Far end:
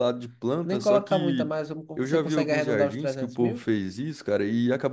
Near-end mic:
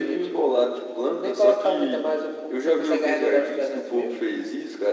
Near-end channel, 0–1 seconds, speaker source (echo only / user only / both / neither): echo only